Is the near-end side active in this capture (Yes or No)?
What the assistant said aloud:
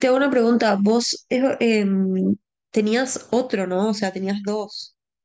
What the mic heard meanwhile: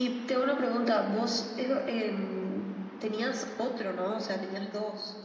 No